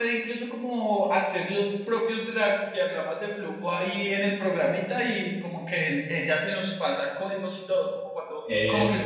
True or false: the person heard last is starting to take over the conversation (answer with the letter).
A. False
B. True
A